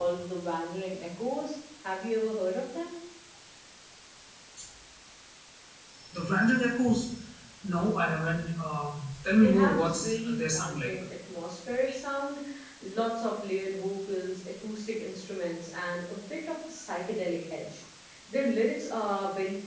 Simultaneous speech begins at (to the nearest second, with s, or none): 9 s